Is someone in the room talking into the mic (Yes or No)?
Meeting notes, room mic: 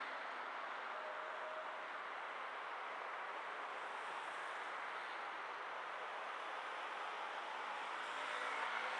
No